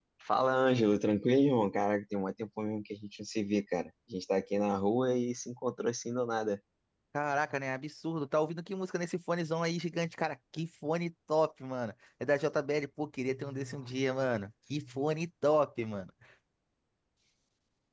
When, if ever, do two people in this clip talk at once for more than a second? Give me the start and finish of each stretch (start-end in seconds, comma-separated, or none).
none